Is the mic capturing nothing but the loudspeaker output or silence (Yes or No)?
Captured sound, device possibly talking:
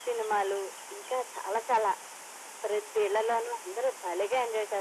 Yes